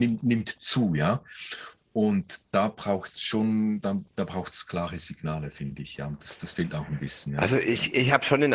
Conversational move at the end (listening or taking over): taking over